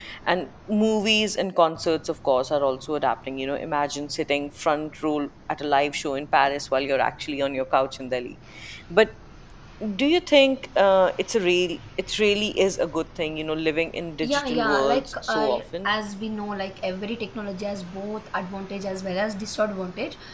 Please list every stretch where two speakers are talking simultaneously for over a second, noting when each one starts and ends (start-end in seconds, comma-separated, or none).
14.2-16.0